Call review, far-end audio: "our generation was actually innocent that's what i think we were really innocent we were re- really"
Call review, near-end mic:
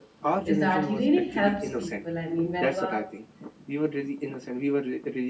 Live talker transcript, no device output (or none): is that he really helps people i mean whenever